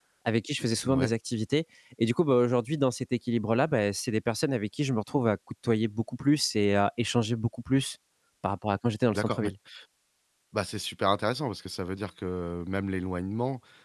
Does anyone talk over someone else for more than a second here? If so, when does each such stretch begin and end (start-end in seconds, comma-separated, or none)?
none